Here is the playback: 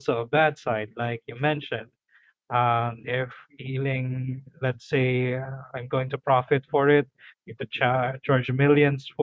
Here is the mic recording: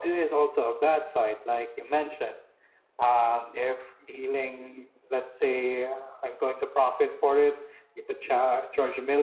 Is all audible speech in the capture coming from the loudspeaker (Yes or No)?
Yes